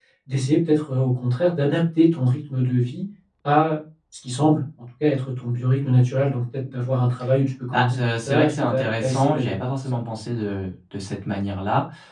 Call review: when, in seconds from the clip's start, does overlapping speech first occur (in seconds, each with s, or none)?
7.7 s